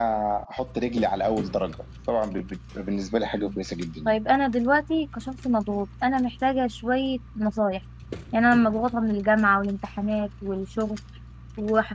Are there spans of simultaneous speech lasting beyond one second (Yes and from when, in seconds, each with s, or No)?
No